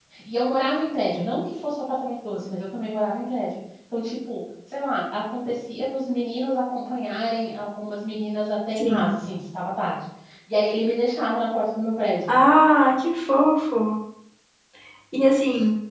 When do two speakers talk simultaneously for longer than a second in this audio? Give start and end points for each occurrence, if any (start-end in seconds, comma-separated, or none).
none